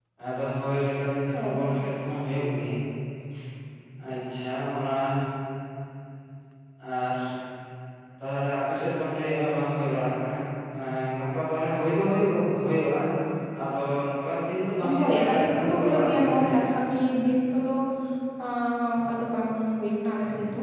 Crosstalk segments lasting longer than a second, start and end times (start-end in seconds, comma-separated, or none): 15.0-16.8